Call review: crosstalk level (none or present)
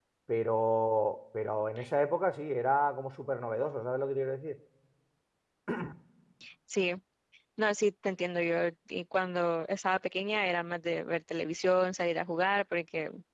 none